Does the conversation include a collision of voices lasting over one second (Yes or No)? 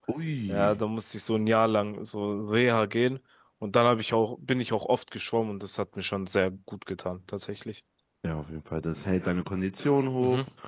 No